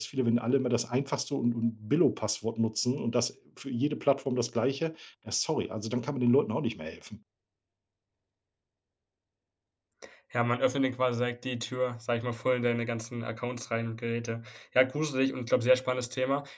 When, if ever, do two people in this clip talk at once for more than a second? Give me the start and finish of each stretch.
none

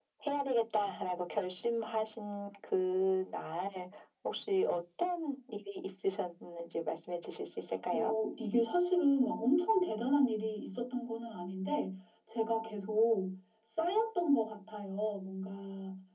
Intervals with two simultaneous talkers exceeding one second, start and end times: none

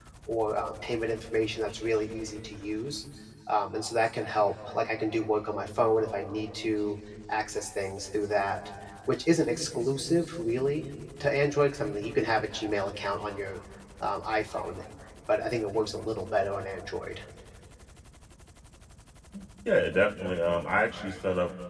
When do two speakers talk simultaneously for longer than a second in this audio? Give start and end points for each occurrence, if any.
none

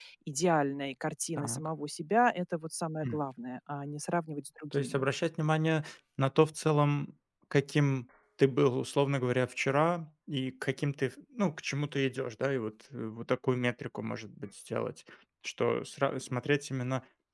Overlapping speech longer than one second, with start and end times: none

